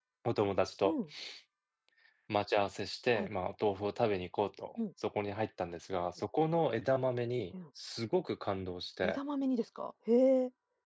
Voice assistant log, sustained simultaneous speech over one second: none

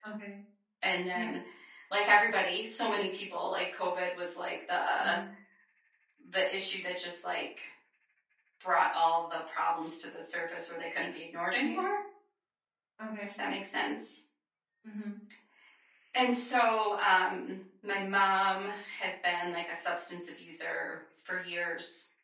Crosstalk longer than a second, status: none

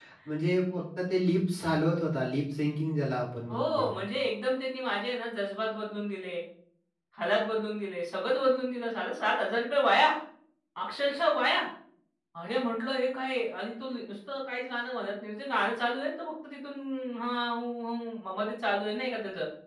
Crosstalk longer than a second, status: none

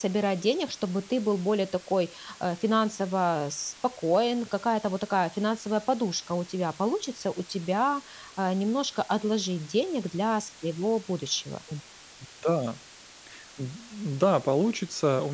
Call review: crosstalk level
none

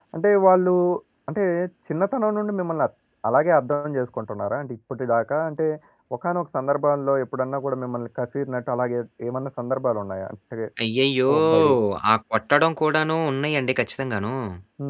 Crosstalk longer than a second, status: none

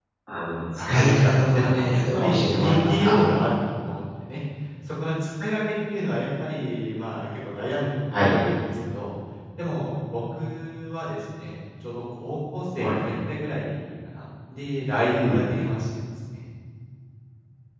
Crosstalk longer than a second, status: present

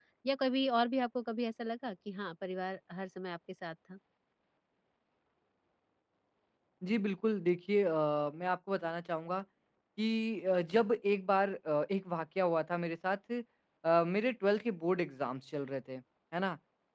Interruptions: none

